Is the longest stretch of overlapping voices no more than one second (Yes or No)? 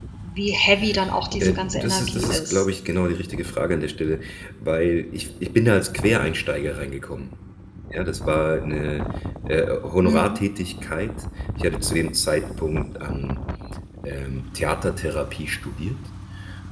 No